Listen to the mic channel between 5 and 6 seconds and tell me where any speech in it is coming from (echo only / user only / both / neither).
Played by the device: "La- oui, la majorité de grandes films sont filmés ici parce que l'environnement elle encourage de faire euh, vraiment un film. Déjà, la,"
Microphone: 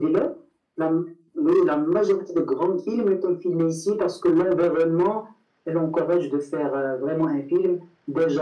echo only